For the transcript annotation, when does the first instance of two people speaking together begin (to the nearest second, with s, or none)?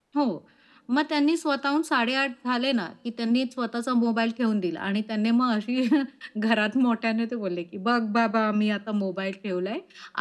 none